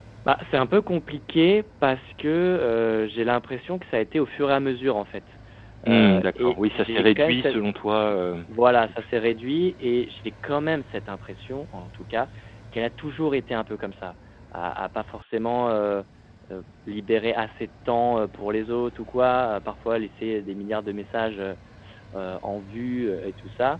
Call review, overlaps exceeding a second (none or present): present